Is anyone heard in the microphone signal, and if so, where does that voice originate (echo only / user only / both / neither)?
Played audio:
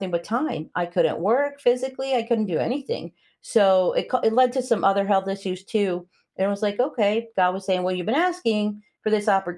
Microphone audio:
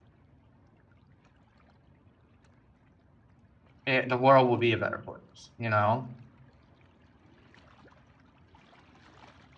user only